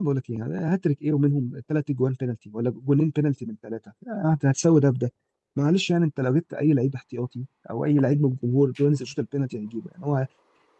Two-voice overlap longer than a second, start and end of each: none

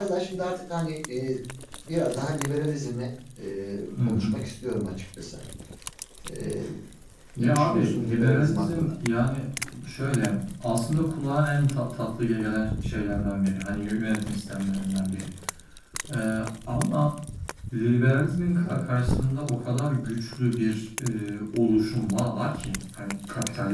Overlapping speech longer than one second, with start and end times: 7.4-8.9

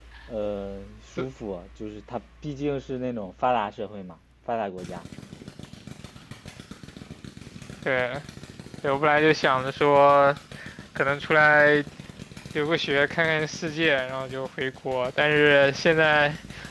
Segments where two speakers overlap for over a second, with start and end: none

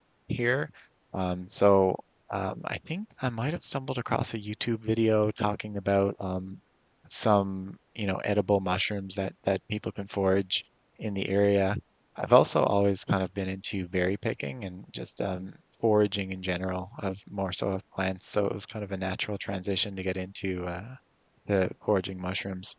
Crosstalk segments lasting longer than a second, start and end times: none

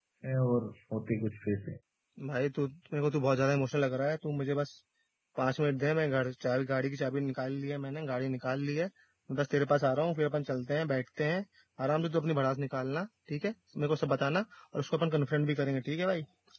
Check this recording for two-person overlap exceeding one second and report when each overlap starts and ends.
none

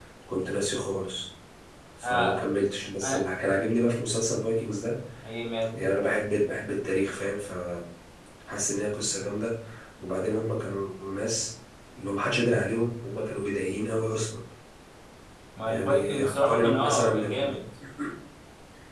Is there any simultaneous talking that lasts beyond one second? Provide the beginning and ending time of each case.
15.7-17.6

